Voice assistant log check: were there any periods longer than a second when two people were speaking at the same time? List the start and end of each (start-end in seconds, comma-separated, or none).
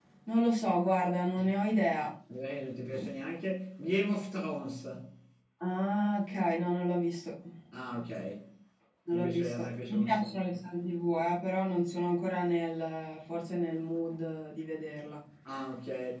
9.1-10.6